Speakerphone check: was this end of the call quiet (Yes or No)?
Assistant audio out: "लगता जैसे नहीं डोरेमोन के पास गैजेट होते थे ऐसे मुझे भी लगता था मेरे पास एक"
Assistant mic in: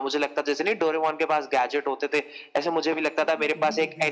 No